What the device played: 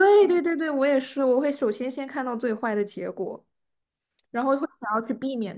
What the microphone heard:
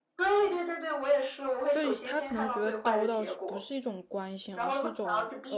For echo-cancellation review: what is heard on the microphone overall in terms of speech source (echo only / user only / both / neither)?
both